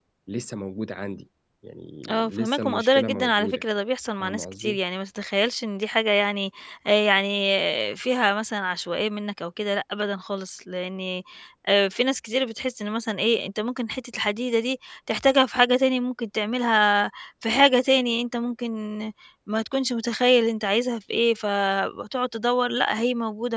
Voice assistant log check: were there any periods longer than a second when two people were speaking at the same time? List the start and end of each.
2.1-3.6

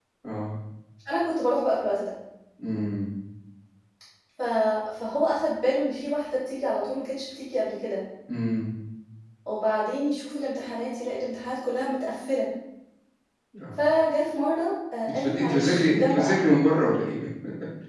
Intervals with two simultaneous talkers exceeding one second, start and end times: 15.1-16.4

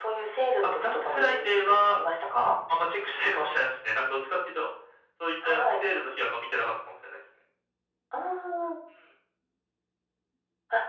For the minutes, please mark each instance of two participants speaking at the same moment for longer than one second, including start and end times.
0.6-2.0

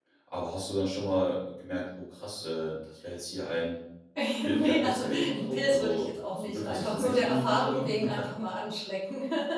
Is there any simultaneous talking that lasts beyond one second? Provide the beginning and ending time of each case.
4.4-8.0

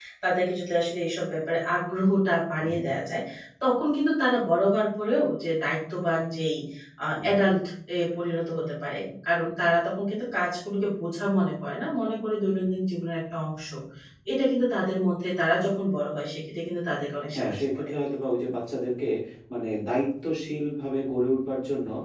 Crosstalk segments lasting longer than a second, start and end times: none

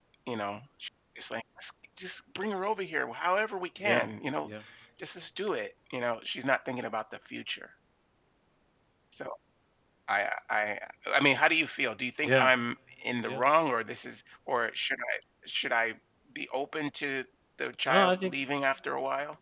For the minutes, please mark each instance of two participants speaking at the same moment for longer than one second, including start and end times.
none

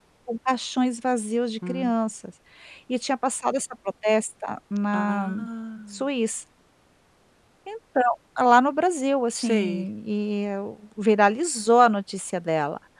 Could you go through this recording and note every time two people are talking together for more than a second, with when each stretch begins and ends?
none

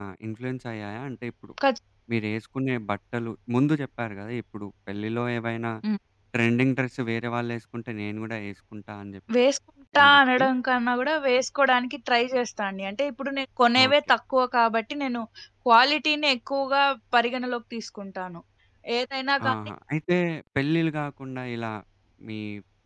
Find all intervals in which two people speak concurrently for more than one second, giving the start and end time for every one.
none

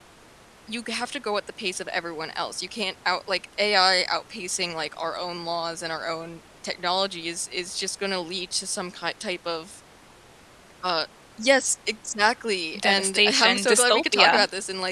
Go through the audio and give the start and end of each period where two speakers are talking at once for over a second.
12.8-14.3

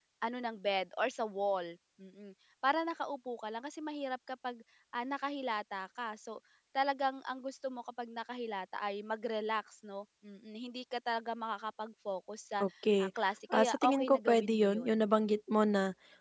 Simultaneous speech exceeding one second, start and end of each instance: 13.5-14.9

